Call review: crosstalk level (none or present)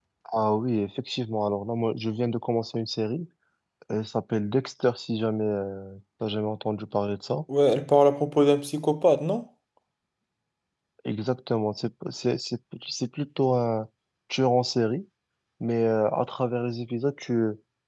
none